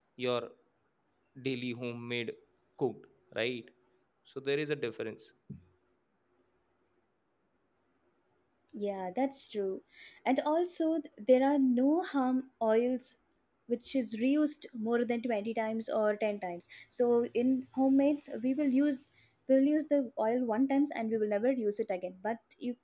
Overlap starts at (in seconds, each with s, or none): none